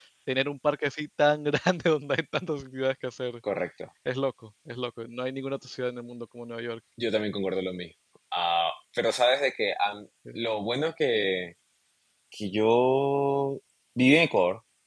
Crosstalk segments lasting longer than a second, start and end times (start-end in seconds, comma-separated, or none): none